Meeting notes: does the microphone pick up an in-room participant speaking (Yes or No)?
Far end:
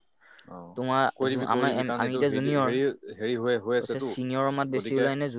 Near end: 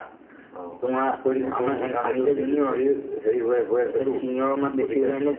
No